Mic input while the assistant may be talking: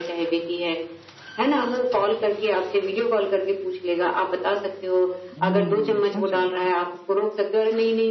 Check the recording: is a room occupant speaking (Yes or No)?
Yes